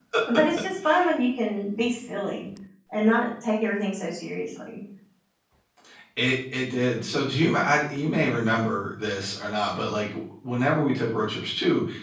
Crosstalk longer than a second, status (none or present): none